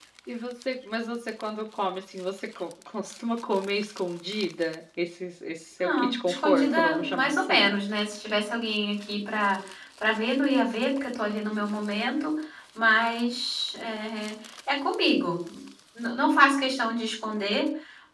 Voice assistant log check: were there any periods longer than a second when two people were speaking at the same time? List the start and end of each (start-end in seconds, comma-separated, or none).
5.8-7.7